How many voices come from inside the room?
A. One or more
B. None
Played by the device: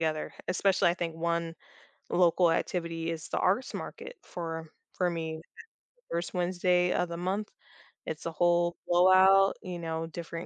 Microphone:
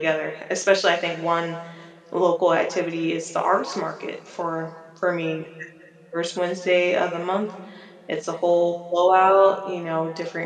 B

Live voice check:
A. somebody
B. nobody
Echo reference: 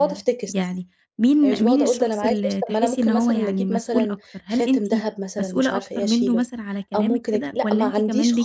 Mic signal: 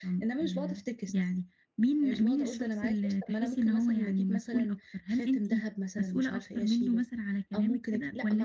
B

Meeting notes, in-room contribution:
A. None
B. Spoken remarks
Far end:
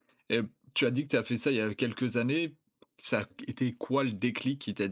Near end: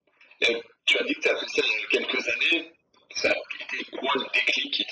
A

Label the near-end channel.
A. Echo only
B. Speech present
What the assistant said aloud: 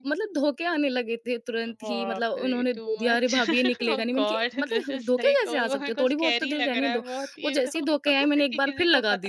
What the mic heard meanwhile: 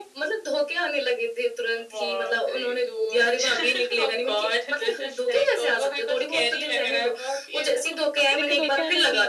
B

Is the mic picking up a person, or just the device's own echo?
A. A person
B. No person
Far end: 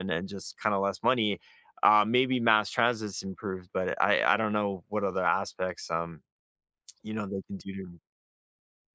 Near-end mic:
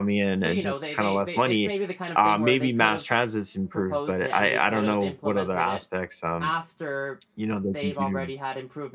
A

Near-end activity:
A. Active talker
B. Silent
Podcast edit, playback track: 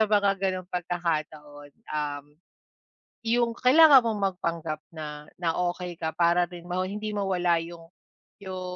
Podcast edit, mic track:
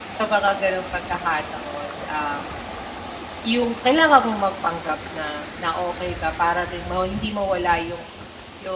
B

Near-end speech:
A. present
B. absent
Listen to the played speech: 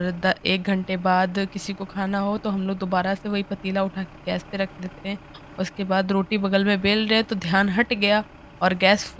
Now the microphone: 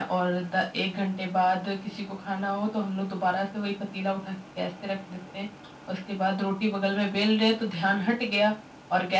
B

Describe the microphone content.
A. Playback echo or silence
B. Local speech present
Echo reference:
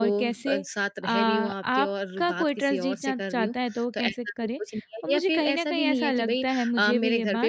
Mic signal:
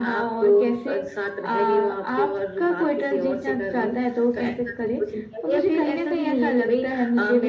A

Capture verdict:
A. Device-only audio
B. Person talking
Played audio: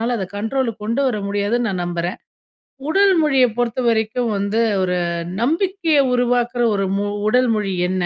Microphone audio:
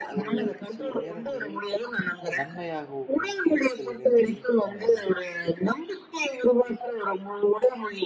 B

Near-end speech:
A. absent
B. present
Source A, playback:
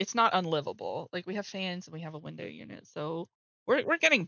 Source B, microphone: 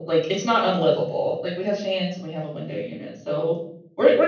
A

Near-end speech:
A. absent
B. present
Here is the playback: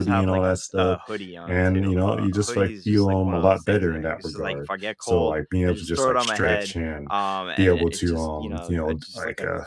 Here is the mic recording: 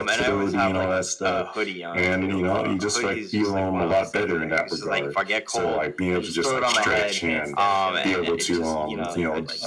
B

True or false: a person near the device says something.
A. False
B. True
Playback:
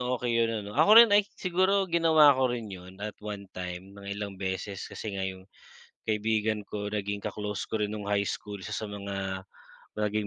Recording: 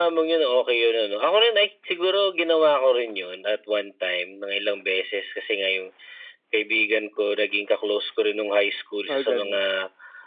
B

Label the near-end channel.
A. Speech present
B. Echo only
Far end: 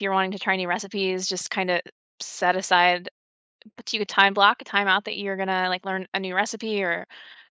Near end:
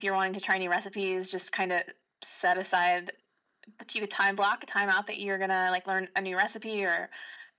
B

